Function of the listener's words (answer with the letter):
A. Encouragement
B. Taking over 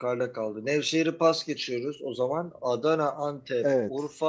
A